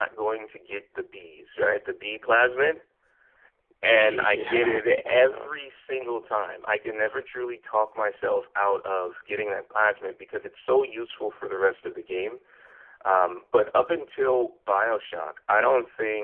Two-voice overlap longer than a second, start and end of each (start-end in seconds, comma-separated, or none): 3.9-5.5